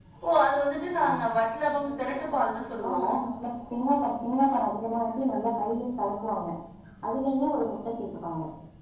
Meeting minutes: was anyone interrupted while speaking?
Yes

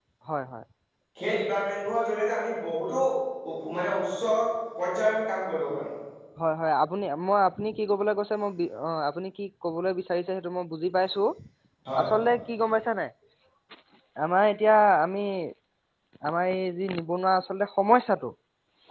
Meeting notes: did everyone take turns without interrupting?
Yes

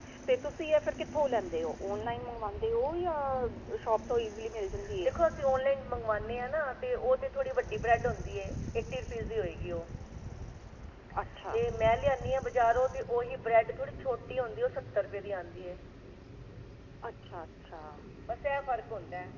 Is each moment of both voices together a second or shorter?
Yes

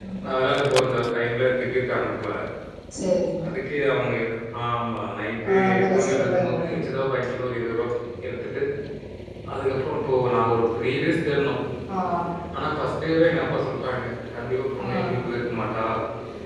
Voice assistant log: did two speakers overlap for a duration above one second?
Yes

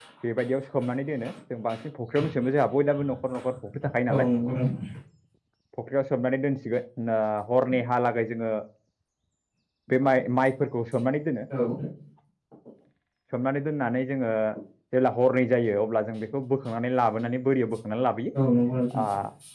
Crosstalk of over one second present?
No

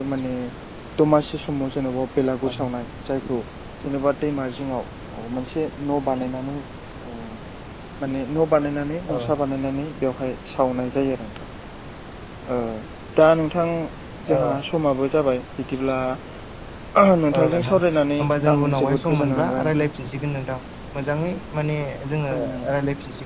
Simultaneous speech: Yes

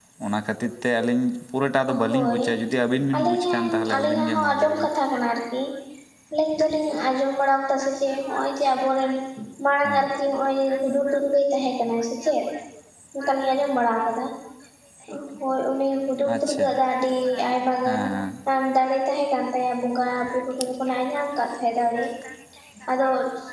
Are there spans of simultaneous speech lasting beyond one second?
Yes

